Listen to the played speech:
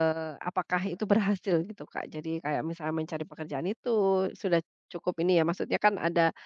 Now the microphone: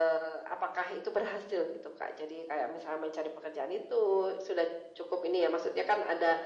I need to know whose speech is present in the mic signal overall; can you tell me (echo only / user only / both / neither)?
echo only